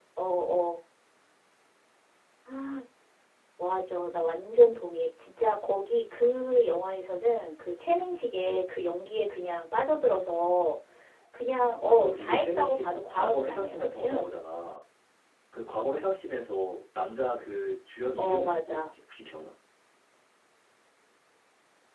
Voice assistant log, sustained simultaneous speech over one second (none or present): present